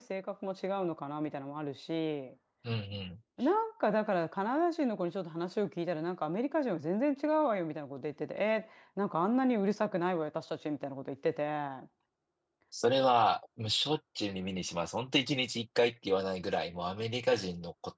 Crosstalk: none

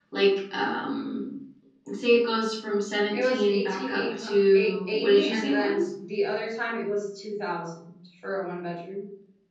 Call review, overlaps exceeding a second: present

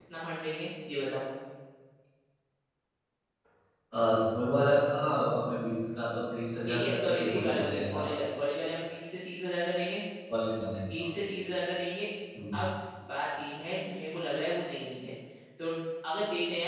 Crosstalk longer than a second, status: present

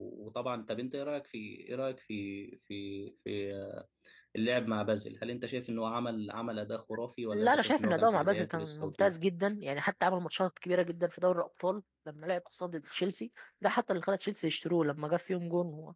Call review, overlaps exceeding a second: present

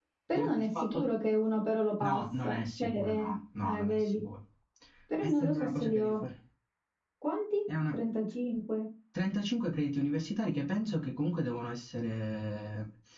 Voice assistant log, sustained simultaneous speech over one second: present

